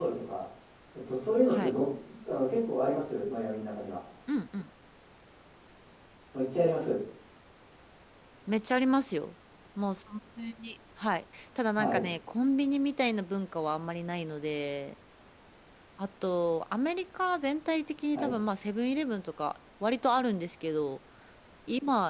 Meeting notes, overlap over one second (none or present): none